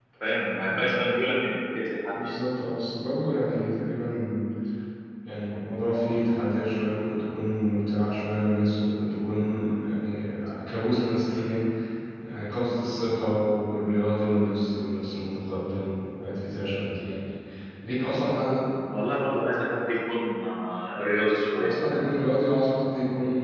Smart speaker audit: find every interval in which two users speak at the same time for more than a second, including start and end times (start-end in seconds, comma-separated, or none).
none